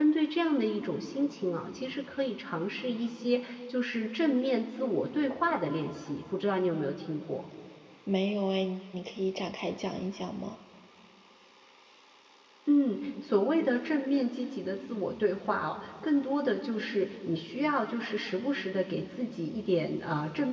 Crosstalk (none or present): none